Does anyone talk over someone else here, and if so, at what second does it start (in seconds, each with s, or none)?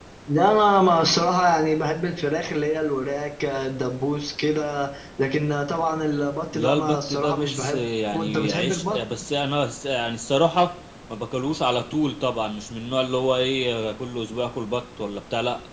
6.5 s